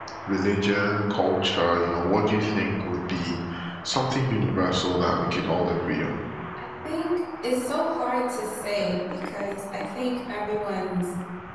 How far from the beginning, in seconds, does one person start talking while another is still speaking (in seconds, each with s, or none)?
none